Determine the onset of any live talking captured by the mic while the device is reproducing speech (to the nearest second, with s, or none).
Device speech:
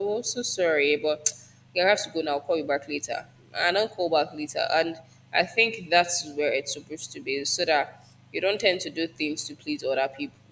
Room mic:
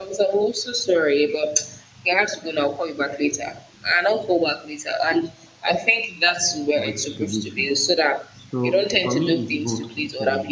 7 s